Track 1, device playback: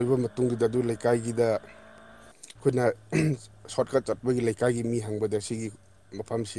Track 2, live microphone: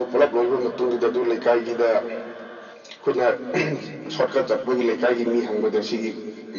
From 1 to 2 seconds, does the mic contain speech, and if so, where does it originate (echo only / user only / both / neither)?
echo only